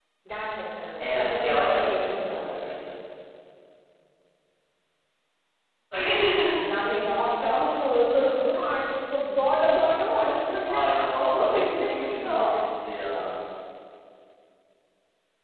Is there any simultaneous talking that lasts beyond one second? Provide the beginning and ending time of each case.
1.0-2.9, 10.6-12.6

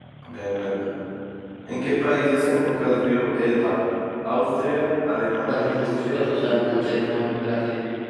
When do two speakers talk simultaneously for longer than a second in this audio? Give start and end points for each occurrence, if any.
5.5-6.9

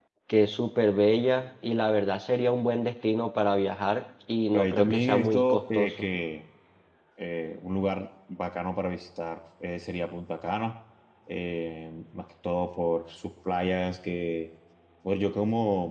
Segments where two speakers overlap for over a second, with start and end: 4.5-6.0

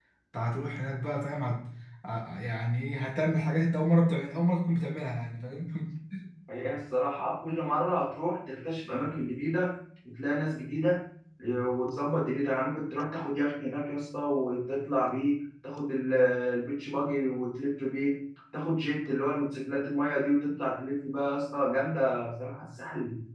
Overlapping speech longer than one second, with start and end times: none

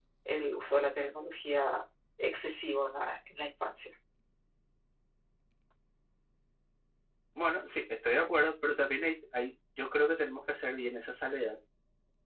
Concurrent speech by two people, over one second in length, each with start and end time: none

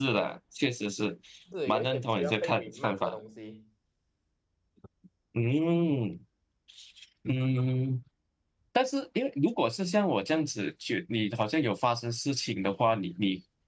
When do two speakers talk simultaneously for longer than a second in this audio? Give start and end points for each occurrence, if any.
1.7-3.2

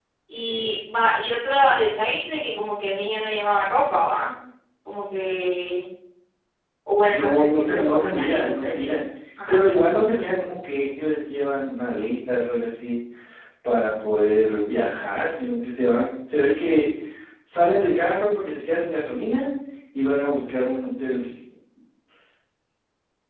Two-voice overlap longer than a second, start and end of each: 7.0-9.0

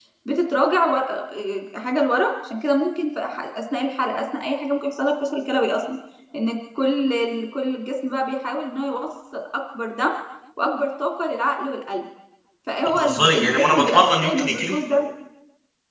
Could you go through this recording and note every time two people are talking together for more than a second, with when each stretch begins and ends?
12.8-14.8

